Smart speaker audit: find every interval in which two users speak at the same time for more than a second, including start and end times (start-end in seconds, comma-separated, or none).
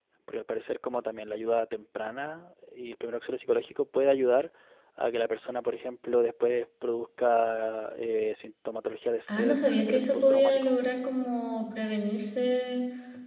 9.4-10.7